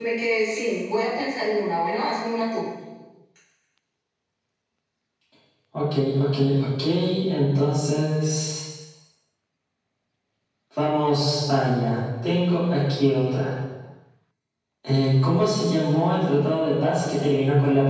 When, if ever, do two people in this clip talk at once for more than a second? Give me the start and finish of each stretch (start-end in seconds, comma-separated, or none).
none